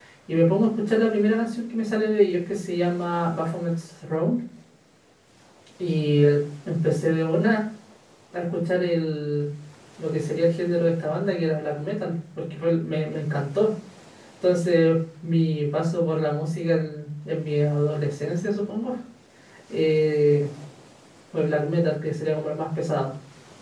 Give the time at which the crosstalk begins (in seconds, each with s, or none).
none